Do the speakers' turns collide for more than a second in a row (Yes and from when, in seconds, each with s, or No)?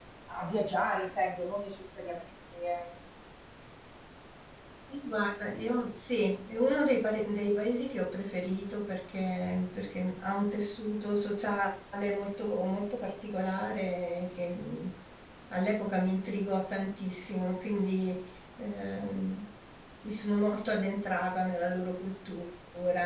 No